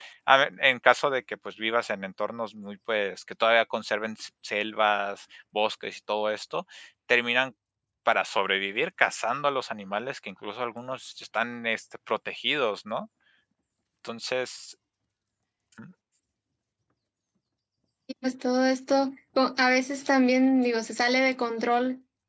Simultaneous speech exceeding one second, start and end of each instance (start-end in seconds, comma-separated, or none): none